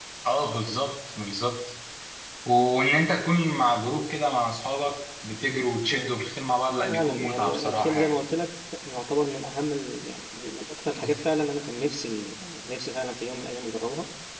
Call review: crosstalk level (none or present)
present